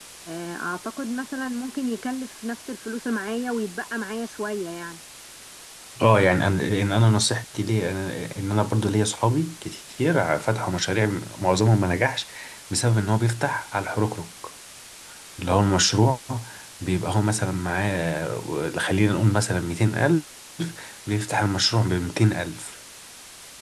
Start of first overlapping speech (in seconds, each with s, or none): none